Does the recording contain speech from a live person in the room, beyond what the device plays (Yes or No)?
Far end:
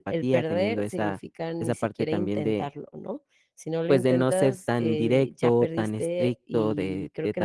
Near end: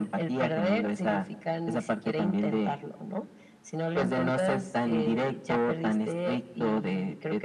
No